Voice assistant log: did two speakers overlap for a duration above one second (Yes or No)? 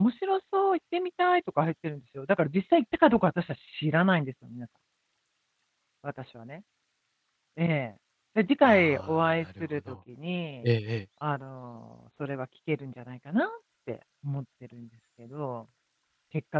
Yes